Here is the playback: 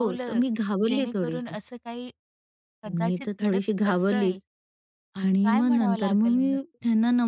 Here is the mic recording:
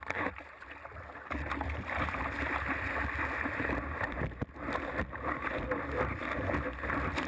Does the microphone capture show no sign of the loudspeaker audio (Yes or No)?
Yes